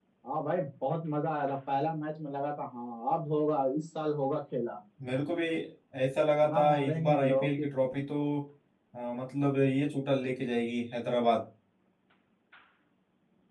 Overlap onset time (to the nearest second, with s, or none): 6 s